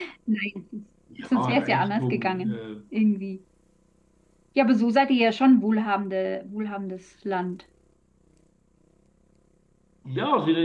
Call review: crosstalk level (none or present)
present